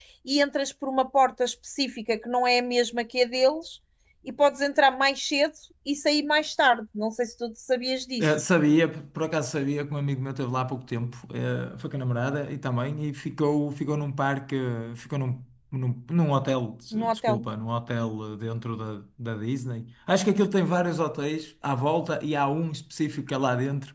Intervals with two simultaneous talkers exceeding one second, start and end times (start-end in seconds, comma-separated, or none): none